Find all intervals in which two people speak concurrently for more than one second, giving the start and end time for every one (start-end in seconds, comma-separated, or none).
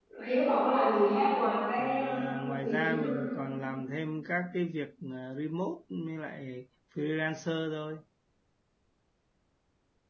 1.8-3.1